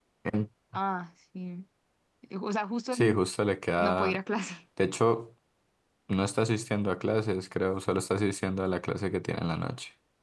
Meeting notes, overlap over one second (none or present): none